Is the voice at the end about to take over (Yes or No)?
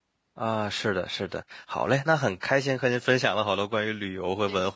No